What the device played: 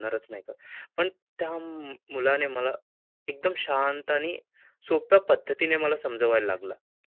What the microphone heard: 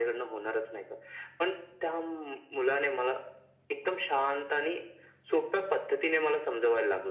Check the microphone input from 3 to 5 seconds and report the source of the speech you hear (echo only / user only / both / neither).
echo only